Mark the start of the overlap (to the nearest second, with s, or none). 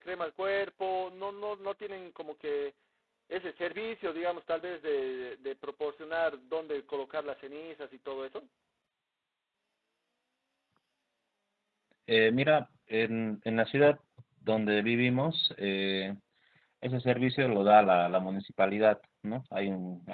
none